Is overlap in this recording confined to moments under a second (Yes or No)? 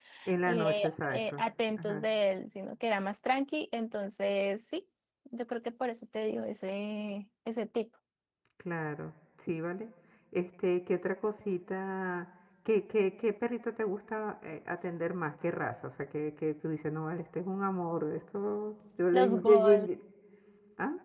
No